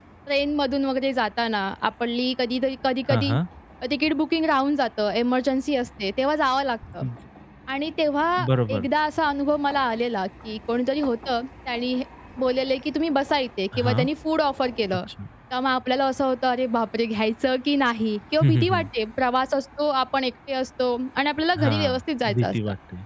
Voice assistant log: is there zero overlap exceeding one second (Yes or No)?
Yes